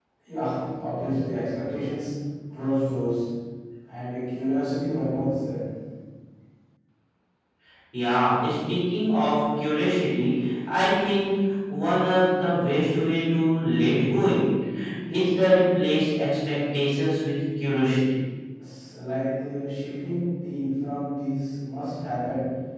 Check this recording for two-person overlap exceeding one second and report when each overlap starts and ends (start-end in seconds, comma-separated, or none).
none